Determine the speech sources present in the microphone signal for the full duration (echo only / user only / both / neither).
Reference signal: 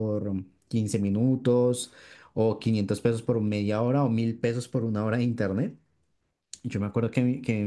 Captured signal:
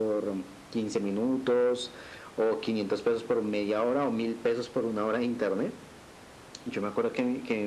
echo only